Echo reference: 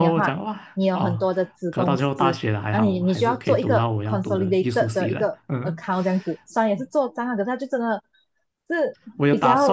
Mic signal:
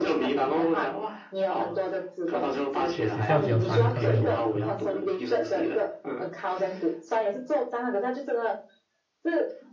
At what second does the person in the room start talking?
2.9 s

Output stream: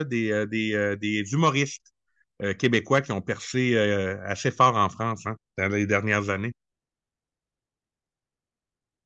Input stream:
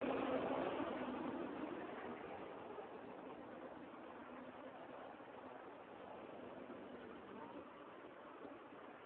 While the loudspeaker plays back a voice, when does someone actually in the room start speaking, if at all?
none

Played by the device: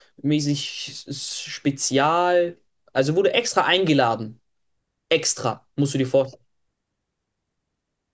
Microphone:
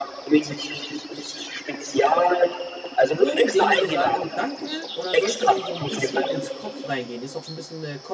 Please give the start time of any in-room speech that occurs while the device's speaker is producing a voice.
3.2 s

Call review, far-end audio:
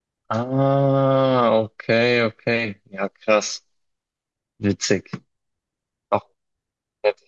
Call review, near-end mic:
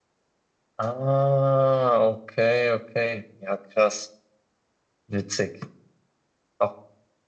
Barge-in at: none

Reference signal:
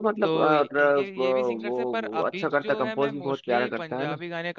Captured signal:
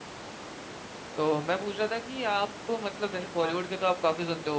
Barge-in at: 1.2 s

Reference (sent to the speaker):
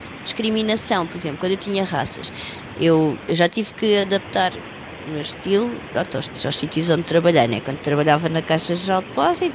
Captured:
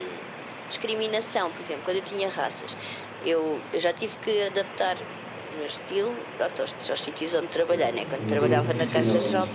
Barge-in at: 7.5 s

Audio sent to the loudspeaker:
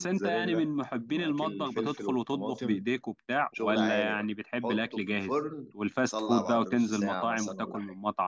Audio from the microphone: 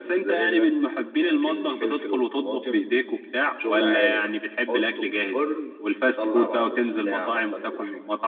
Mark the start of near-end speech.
none

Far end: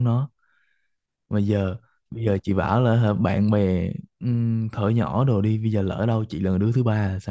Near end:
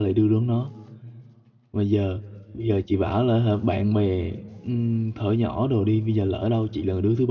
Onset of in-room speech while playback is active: none

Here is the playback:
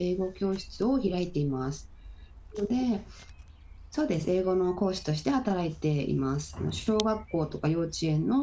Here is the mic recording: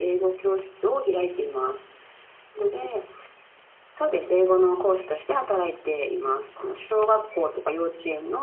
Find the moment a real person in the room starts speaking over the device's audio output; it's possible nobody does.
none

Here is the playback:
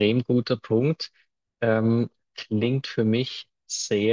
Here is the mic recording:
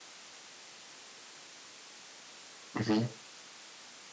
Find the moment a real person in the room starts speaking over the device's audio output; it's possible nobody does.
2.7 s

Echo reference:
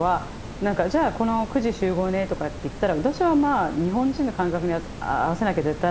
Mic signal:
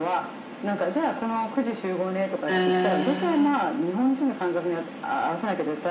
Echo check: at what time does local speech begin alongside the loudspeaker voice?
2.5 s

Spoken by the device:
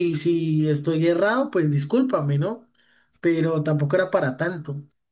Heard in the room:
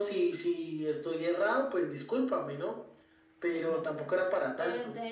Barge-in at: 3.5 s

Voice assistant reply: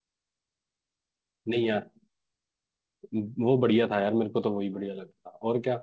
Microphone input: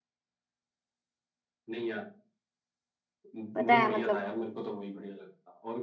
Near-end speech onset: 3.5 s

